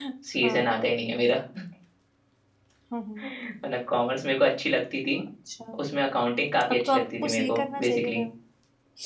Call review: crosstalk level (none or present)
present